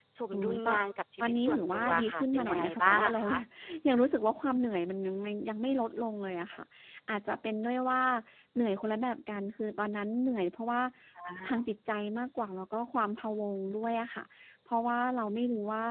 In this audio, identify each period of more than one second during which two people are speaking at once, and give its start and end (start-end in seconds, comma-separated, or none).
1.2-3.3